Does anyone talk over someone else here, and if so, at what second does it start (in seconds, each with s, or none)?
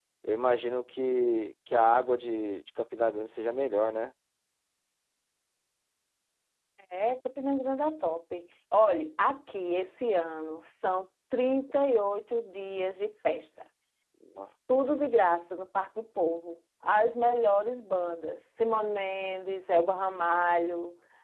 none